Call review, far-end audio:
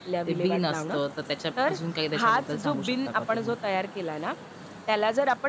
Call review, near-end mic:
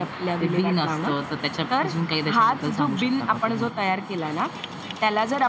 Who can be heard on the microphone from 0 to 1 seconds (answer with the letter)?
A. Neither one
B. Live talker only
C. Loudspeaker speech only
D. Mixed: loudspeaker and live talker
C